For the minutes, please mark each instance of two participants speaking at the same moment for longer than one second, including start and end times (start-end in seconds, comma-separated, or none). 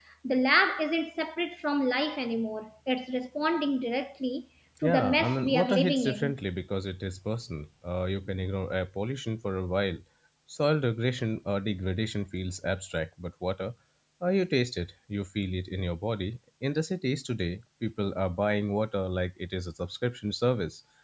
4.8-6.4